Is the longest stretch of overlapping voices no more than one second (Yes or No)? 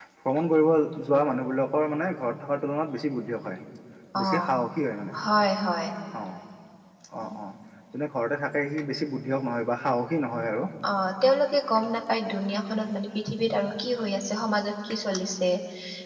Yes